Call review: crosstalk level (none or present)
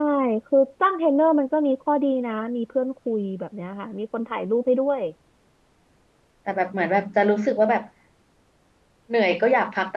none